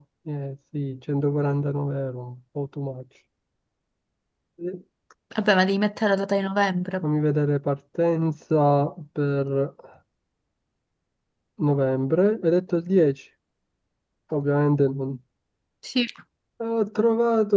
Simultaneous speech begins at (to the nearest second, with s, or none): none